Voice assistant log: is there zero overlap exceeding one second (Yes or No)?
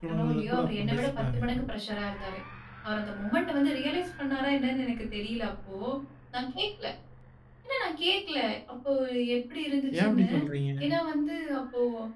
No